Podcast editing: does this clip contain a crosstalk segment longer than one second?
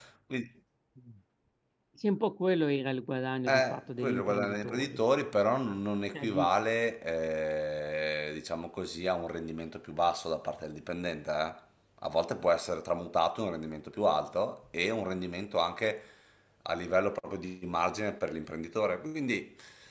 Yes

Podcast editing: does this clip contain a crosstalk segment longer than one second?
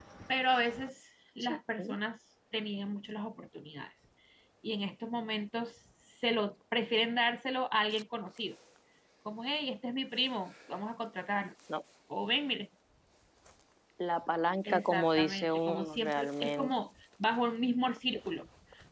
Yes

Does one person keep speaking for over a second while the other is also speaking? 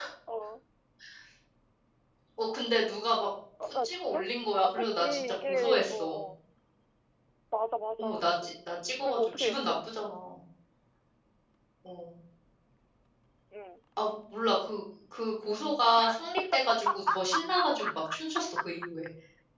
Yes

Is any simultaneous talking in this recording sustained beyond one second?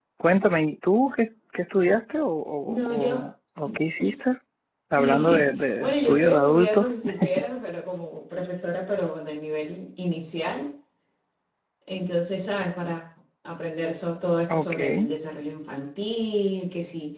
Yes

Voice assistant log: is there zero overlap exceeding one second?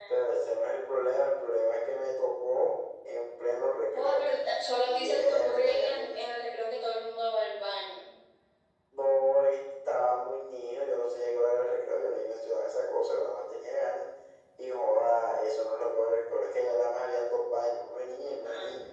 No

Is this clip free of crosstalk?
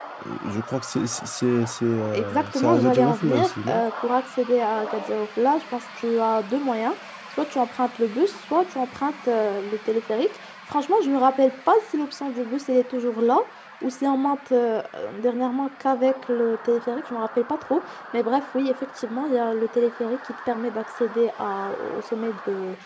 No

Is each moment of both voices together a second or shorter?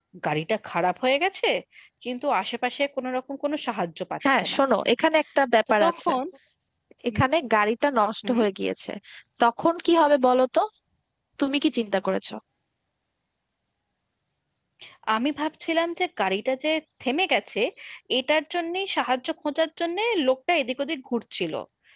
Yes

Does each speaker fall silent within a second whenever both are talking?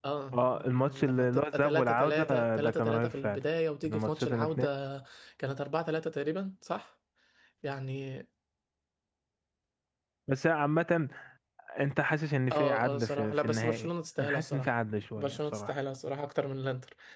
No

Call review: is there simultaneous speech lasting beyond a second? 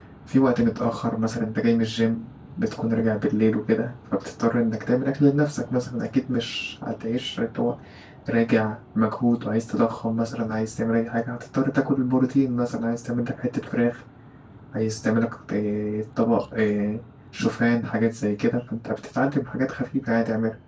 No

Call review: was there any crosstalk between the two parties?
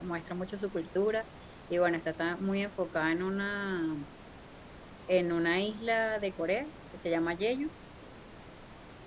No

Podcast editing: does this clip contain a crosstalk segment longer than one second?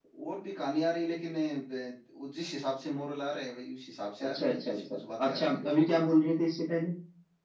Yes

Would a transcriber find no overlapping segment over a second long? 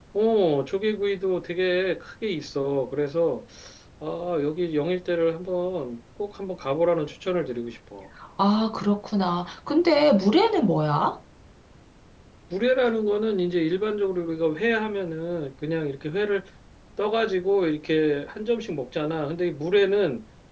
Yes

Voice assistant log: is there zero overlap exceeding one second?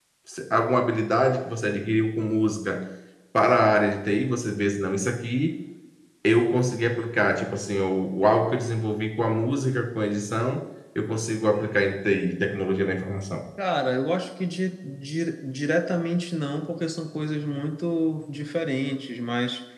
Yes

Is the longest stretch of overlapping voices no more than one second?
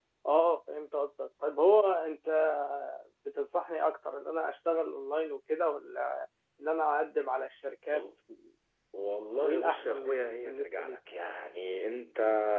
No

